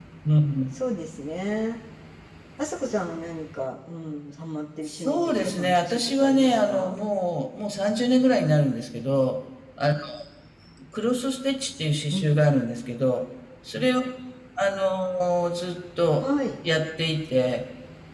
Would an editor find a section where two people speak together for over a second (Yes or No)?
Yes